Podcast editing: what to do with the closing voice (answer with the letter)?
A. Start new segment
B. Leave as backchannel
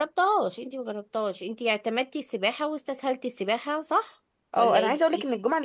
A